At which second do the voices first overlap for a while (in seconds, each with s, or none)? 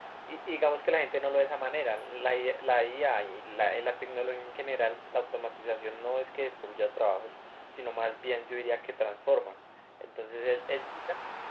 none